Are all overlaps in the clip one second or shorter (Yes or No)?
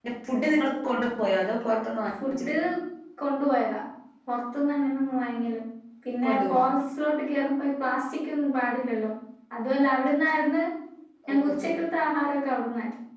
Yes